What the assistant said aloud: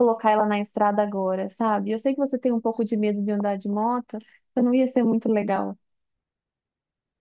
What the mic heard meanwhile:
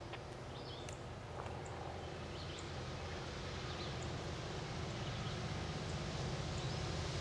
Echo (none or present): none